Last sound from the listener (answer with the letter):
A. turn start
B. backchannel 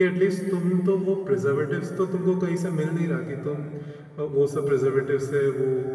B